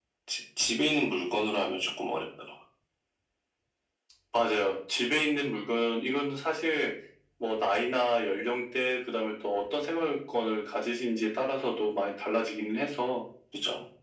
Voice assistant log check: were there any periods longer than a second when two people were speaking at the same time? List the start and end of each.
none

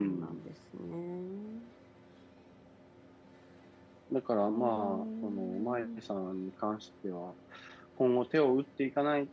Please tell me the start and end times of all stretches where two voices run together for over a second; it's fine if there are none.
4.5-6.0

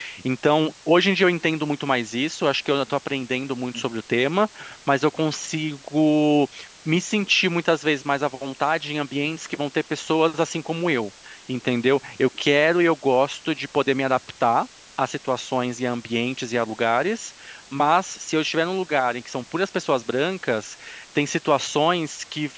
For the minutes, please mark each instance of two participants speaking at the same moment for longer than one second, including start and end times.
none

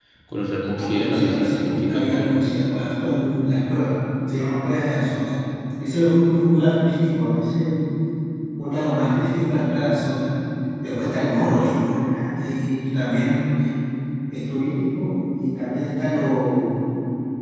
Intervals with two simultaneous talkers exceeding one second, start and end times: 0.8-2.4

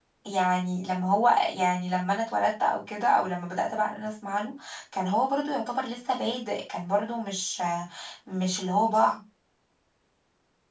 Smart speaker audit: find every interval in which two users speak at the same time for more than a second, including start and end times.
none

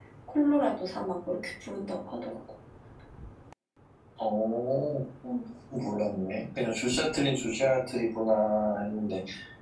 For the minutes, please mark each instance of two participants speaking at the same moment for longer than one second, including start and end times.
none

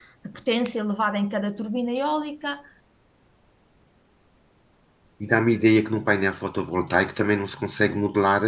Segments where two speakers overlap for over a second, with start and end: none

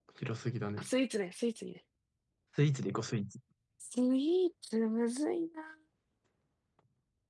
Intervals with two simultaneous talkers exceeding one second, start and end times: none

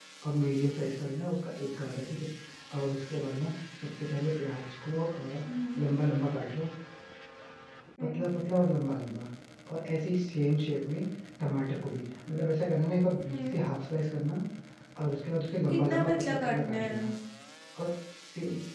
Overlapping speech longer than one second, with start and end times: 15.7-17.0

